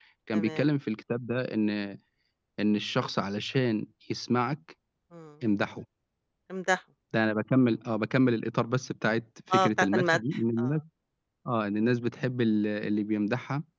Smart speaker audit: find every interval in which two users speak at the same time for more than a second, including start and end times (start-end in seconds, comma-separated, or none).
9.5-10.7